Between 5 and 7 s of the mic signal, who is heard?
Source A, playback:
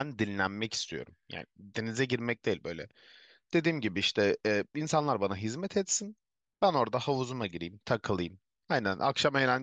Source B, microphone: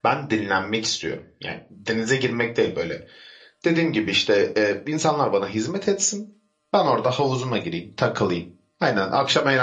echo only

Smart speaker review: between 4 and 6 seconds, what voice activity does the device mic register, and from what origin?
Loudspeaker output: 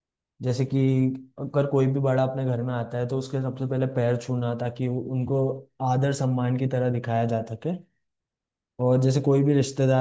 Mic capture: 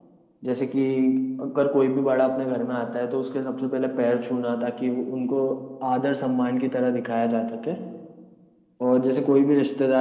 echo only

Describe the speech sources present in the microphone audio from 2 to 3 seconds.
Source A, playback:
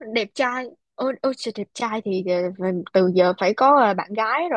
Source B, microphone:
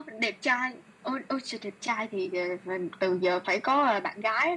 echo only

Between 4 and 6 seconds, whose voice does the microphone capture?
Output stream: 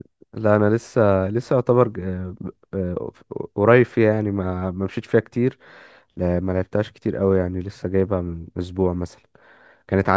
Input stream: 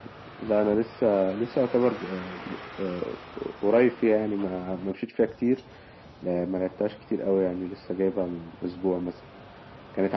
echo only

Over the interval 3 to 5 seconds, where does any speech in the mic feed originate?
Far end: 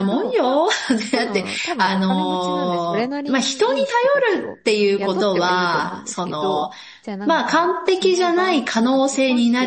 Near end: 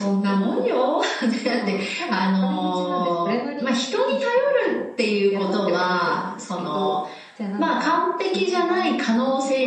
echo only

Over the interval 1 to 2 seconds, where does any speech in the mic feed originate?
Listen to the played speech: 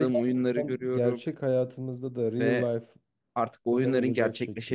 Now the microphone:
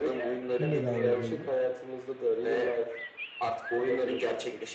both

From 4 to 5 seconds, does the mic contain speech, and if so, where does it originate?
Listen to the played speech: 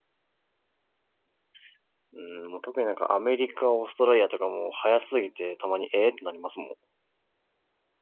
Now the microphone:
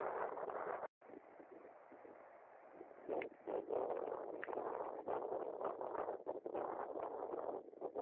neither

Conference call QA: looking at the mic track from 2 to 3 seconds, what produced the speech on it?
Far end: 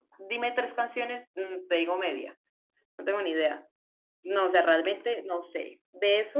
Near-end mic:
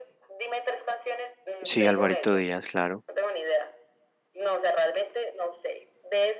both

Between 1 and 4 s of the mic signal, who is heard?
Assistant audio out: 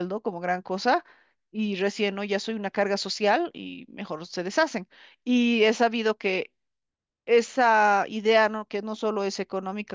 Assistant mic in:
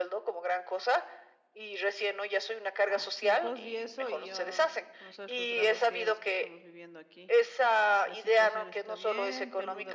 both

